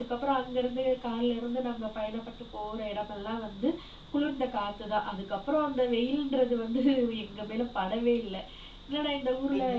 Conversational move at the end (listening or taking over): taking over